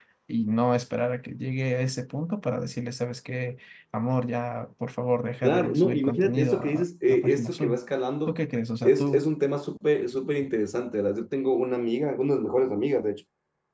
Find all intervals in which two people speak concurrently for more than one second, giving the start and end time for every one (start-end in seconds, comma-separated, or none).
5.4-7.8